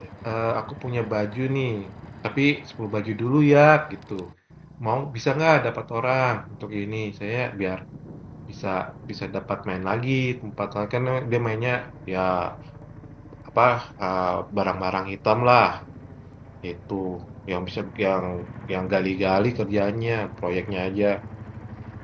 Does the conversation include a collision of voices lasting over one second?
No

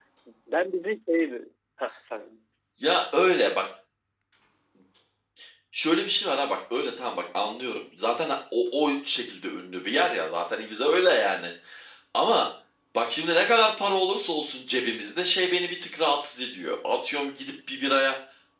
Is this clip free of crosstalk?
Yes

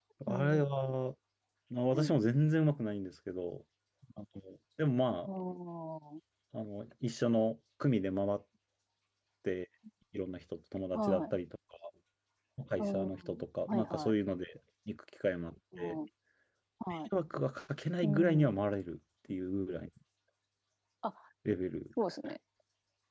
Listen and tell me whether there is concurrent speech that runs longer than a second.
Yes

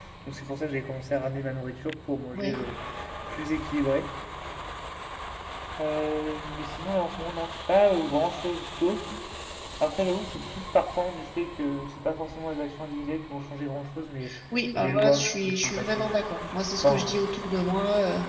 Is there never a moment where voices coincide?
No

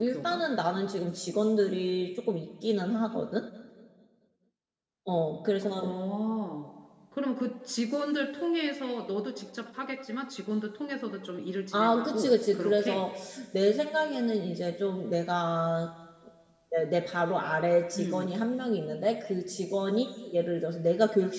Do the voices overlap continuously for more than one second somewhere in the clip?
Yes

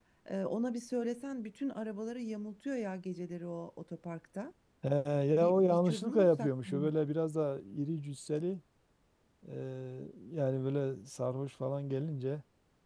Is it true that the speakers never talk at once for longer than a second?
No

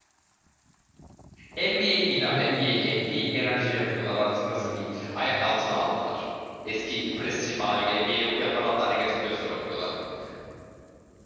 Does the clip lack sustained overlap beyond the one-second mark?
No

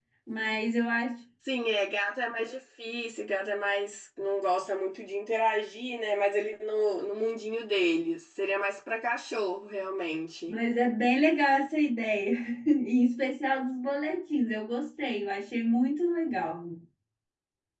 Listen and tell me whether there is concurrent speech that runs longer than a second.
No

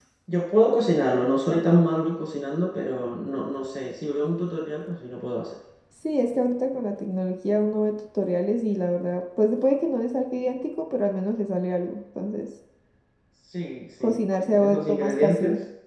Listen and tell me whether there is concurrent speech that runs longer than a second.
Yes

